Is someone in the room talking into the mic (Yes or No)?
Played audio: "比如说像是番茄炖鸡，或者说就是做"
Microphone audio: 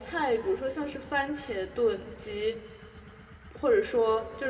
No